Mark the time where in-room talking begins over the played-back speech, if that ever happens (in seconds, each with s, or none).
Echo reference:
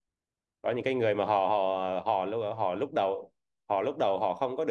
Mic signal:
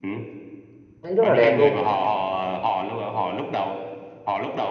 1.0 s